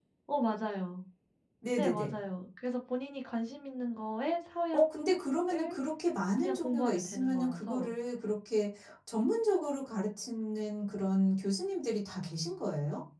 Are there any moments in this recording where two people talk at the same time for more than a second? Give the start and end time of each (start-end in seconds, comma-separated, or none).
6.4-7.9